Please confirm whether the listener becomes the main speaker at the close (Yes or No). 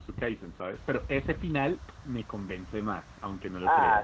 Yes